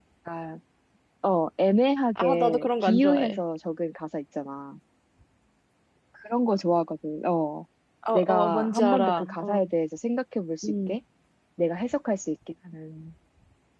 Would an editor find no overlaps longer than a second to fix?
No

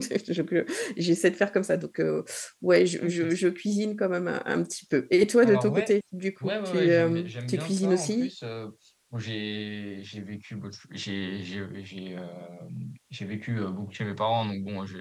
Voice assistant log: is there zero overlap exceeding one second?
No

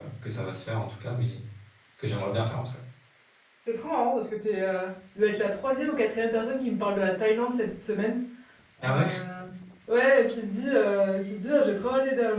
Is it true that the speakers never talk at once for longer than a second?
Yes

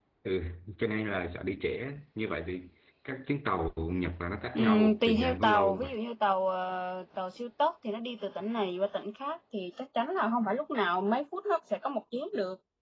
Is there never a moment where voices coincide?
No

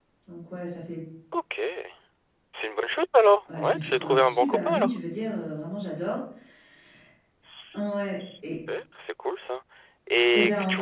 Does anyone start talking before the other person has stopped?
Yes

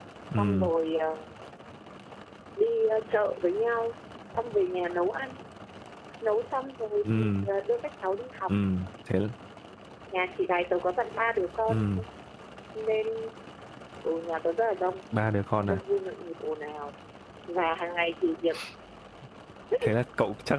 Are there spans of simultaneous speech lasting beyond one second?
No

